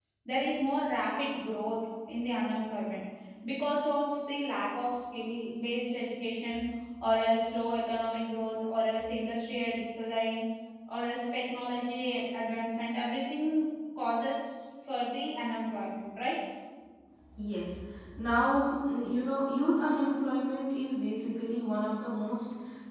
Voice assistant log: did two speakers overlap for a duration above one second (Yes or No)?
No